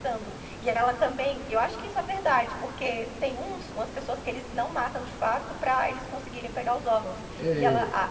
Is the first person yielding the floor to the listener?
No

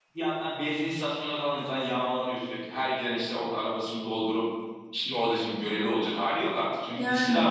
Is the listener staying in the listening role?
Yes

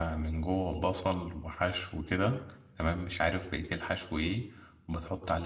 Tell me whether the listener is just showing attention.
Yes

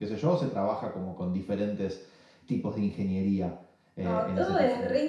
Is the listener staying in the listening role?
No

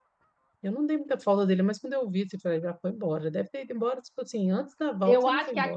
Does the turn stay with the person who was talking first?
No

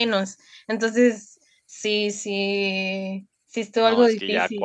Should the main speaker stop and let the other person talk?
Yes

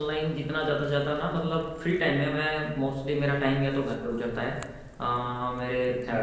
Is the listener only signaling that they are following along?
Yes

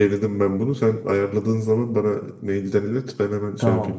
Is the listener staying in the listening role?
No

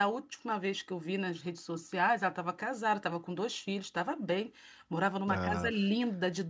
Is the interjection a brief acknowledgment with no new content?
Yes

